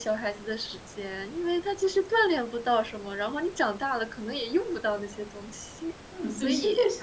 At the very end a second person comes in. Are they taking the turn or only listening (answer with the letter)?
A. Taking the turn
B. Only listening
A